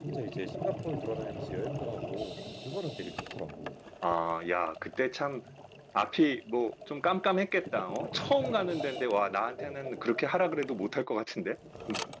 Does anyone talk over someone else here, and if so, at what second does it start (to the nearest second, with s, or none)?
none